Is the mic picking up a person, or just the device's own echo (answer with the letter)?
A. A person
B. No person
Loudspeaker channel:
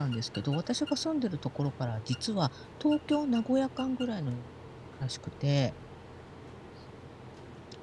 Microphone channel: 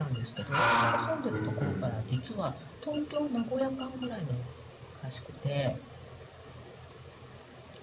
A